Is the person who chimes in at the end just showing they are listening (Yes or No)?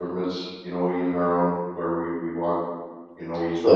No